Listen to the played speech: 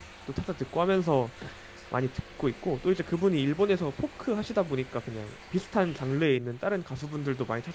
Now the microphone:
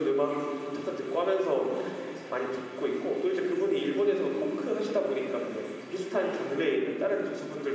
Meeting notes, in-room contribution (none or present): none